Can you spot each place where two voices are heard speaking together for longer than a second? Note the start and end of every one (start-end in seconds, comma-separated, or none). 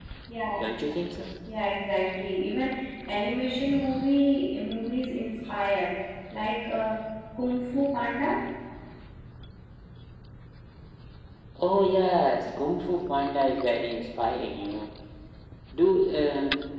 none